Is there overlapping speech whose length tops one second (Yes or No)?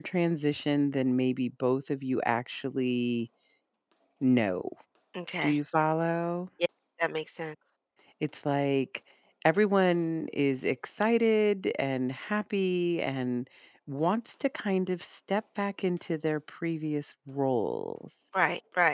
No